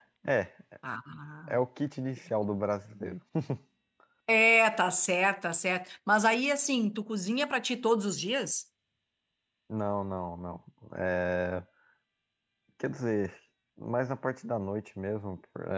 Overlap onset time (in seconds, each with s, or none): none